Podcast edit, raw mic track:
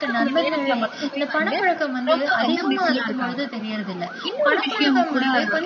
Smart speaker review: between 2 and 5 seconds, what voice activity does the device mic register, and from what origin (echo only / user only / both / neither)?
both